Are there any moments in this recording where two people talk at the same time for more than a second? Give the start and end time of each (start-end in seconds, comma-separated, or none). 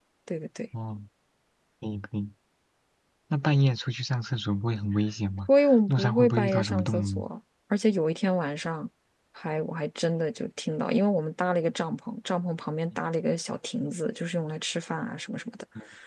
5.9-7.2